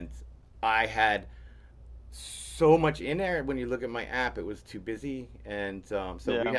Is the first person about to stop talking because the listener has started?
No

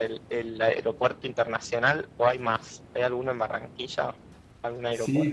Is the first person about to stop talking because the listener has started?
Yes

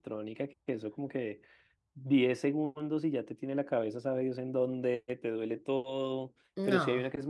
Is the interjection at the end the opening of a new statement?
No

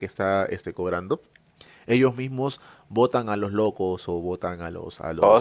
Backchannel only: Yes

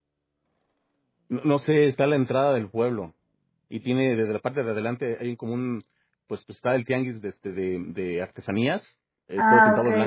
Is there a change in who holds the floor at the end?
No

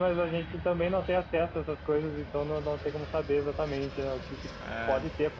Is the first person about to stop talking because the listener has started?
No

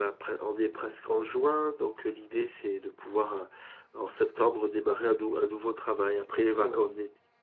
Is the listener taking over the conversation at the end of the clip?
Yes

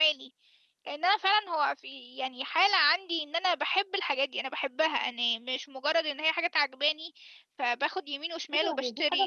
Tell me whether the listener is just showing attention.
No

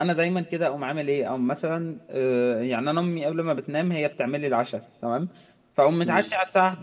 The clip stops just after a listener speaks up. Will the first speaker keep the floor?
Yes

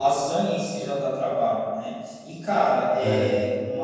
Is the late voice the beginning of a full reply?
No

